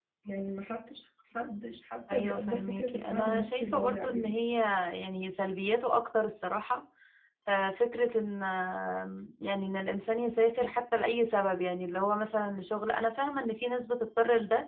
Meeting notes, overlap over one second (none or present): present